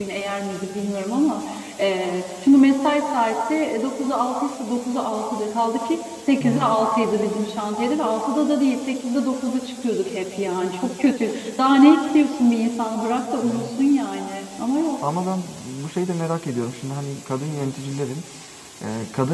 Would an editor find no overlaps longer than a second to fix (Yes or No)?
Yes